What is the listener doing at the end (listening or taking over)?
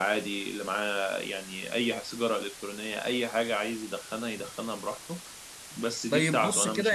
taking over